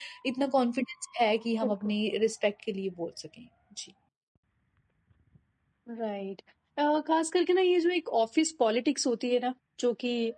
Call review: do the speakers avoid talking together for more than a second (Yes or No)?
Yes